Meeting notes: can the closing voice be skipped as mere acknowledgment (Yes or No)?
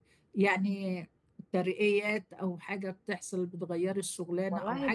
Yes